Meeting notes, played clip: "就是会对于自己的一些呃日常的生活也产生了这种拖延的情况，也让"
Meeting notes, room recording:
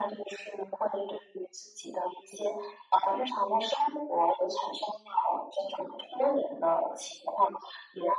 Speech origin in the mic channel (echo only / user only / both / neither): echo only